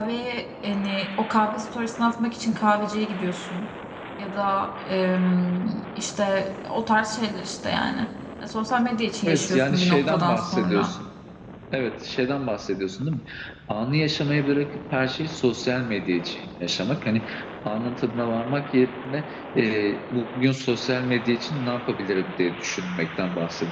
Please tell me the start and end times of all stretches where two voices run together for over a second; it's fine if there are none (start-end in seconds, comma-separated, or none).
9.3-10.9